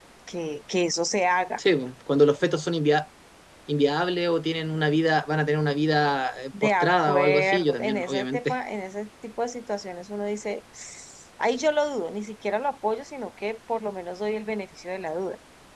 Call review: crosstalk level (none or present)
present